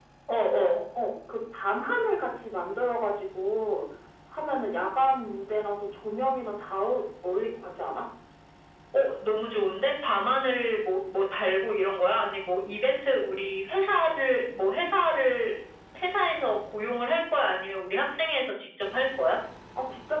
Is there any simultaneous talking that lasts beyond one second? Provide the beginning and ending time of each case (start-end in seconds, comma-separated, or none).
none